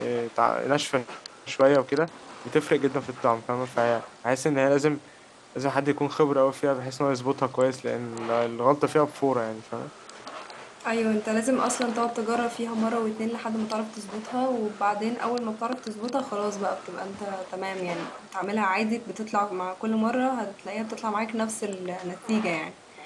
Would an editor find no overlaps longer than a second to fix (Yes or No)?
Yes